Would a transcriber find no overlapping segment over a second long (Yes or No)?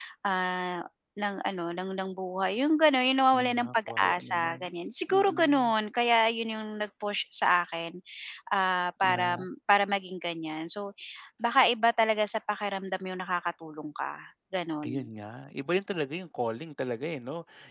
No